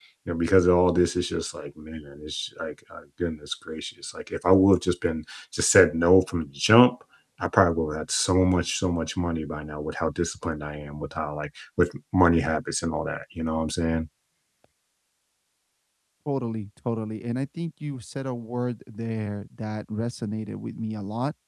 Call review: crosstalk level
none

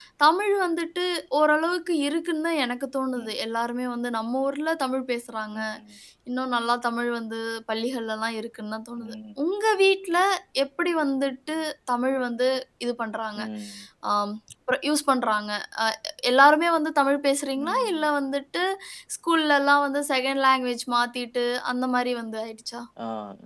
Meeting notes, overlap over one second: none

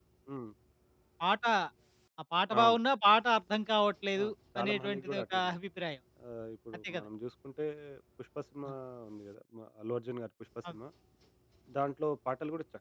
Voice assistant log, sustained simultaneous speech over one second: present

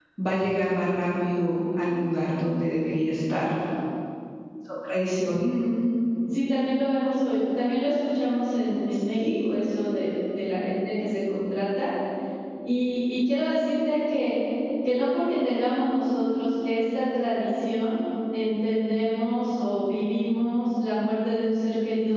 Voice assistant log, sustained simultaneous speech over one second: none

